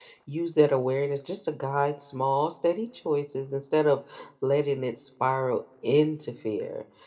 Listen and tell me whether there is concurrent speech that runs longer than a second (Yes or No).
No